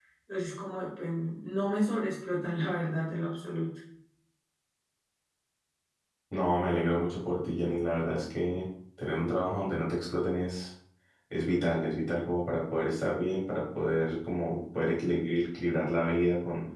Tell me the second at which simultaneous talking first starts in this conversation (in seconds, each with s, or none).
none